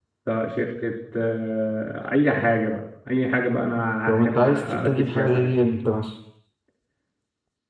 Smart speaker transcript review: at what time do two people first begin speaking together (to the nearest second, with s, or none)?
4 s